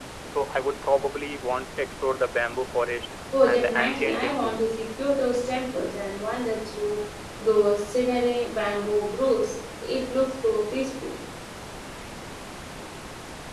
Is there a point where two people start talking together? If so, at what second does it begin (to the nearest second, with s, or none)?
3 s